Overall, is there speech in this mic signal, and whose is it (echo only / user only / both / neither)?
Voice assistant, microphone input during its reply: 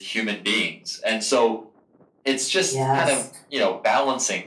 both